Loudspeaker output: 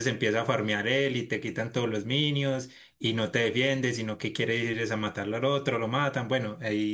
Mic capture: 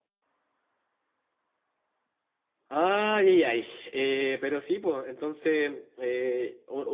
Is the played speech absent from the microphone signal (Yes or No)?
Yes